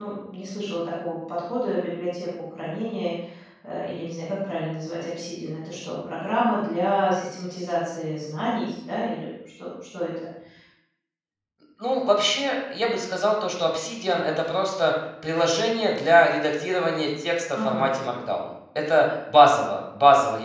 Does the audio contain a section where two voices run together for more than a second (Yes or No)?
No